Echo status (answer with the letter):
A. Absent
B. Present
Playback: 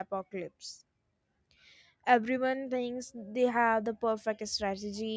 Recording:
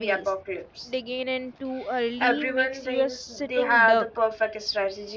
B